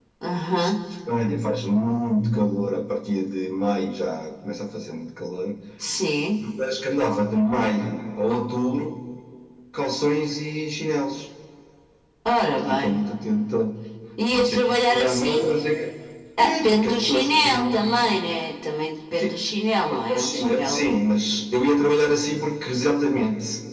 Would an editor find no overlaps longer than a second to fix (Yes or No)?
No